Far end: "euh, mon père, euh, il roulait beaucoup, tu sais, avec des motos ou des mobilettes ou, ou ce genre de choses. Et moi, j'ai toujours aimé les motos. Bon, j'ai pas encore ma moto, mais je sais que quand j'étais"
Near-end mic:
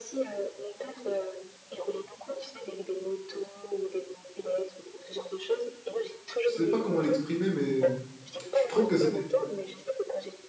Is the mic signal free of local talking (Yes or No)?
No